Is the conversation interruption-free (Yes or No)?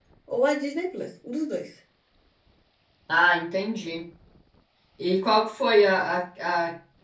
Yes